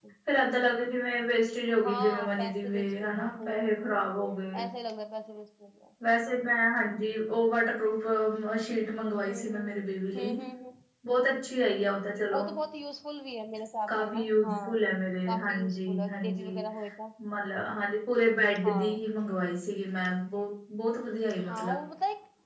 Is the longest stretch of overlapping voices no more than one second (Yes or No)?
No